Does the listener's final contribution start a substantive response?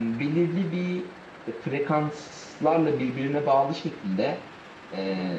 No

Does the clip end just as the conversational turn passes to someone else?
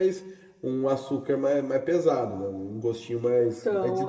Yes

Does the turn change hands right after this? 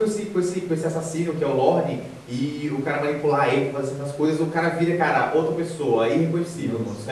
No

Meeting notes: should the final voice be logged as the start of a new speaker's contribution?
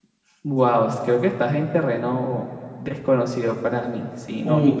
Yes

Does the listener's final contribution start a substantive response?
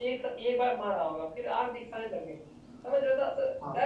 No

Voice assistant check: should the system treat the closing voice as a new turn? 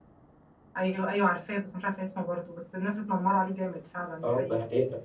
Yes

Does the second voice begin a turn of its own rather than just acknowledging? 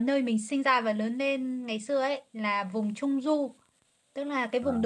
No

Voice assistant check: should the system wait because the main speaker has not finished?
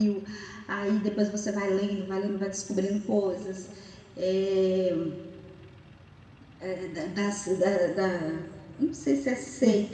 Yes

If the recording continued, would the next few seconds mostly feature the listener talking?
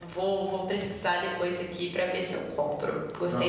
Yes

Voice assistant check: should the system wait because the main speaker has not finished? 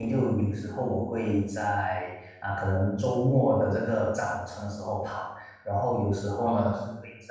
Yes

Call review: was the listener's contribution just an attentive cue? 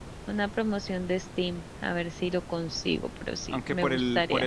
No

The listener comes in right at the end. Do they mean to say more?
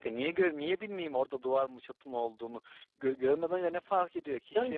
Yes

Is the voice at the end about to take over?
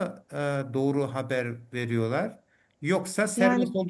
No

